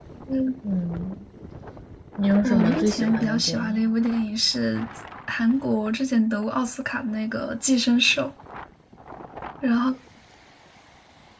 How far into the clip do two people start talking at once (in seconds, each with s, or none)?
2.4 s